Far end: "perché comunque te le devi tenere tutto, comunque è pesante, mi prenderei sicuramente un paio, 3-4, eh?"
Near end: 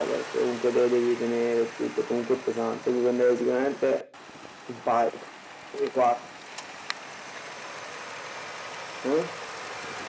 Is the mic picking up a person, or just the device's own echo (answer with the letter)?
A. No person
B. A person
A